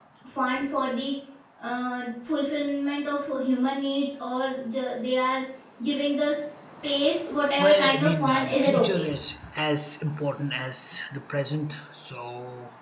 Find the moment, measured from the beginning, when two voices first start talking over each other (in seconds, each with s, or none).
7.6 s